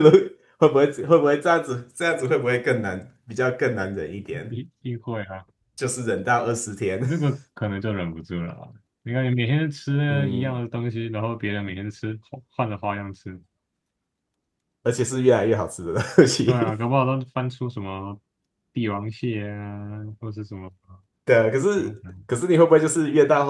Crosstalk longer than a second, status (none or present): none